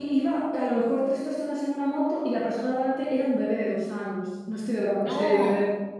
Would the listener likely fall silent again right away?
Yes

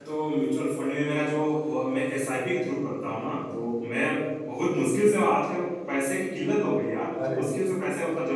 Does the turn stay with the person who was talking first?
Yes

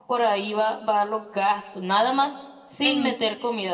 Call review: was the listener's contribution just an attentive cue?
Yes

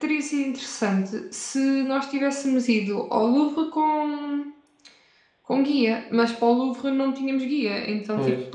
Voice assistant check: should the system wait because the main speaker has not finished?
Yes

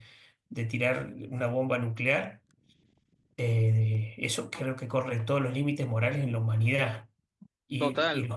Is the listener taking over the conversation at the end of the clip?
No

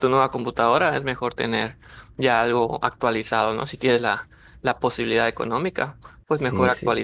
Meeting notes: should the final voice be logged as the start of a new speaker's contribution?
No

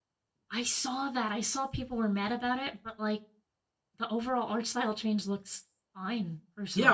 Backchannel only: No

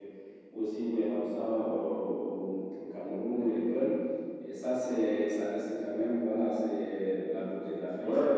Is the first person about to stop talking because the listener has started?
Yes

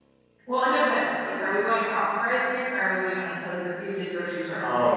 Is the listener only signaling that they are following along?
No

